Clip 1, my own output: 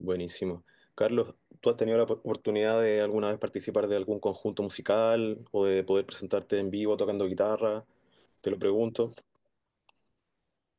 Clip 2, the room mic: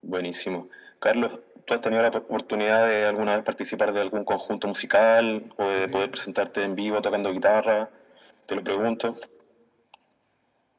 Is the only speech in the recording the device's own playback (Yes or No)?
No